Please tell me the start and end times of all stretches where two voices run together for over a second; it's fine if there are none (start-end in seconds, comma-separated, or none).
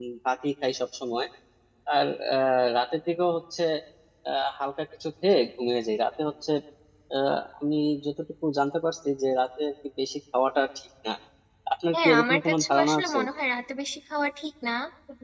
11.9-13.2